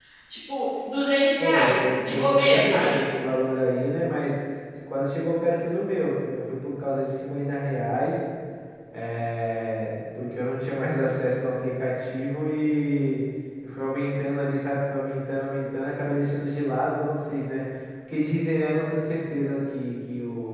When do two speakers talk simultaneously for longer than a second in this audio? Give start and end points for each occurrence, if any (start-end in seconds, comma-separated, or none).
1.4-3.0